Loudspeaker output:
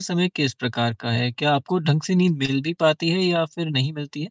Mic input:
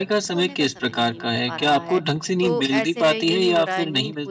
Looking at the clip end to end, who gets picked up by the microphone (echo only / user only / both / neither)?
both